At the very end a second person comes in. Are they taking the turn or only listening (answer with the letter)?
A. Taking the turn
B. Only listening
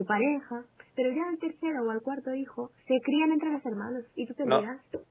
A